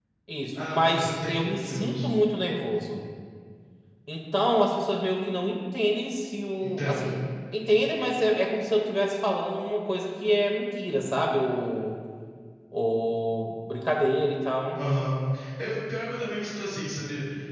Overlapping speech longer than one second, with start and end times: 0.6-2.0

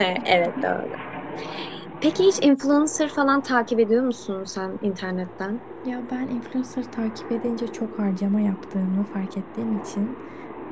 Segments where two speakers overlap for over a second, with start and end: none

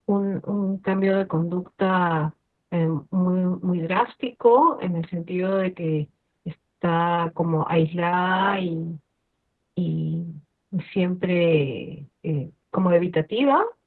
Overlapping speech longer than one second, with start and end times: none

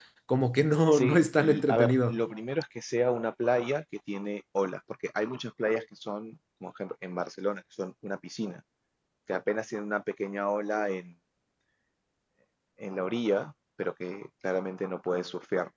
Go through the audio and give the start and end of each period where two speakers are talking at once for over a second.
0.9-2.2

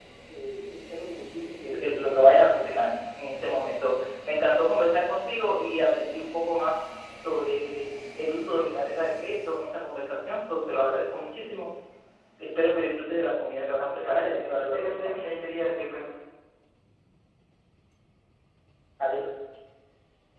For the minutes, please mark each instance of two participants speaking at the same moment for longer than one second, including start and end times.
14.0-15.3

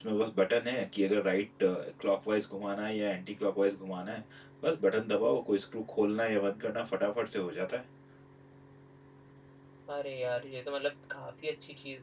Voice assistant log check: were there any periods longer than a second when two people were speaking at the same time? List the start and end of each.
none

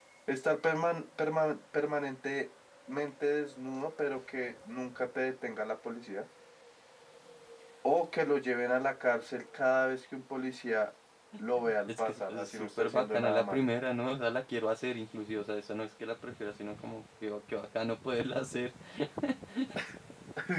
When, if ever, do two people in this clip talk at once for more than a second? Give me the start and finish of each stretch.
11.9-13.6

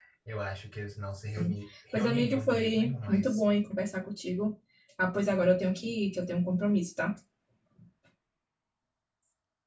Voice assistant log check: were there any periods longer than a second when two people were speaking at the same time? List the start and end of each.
1.9-3.4

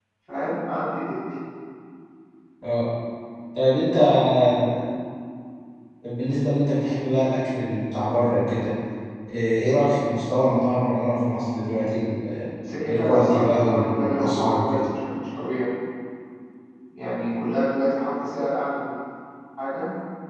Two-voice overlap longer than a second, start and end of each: 12.9-14.8

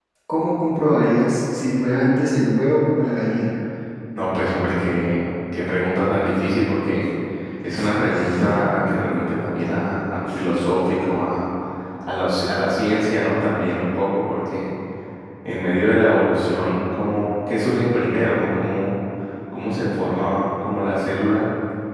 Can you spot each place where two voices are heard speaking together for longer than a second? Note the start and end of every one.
none

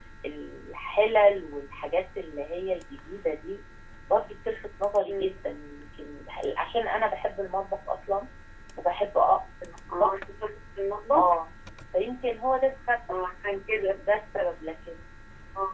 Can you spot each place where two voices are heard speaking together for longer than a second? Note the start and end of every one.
none

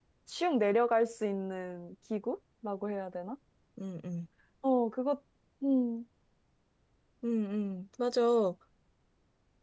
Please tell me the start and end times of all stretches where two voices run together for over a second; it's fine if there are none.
none

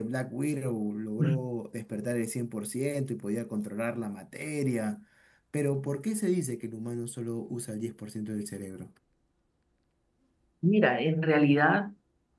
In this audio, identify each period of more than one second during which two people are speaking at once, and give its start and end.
none

